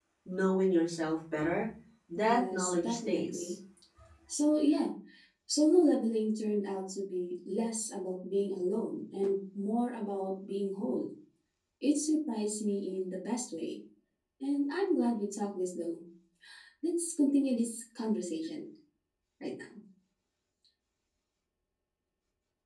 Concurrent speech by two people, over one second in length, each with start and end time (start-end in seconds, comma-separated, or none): 2.2-3.5